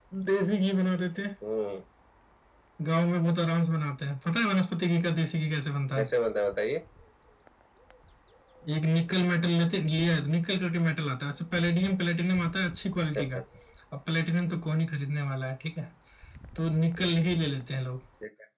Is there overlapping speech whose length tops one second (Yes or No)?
No